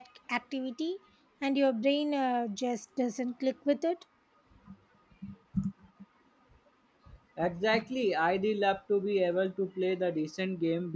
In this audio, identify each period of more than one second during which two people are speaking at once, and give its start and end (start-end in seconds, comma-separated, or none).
none